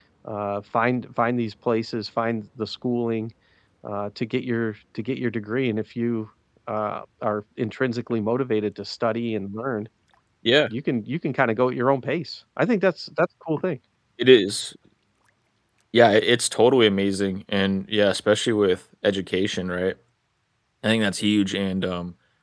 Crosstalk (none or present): none